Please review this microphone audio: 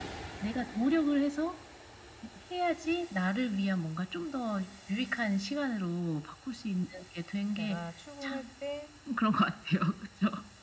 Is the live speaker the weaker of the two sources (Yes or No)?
Yes